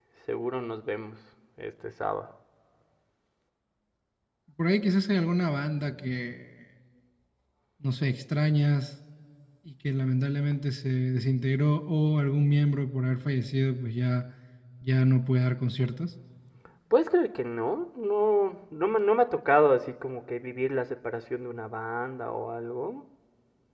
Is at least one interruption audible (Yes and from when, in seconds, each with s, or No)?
No